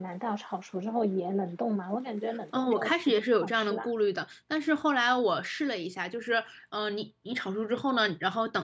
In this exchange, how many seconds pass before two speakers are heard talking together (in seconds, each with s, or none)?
2.5 s